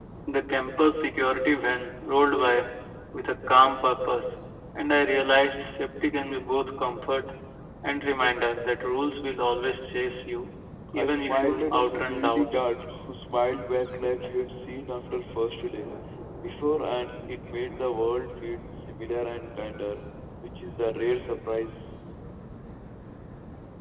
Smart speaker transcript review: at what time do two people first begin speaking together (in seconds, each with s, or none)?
10.9 s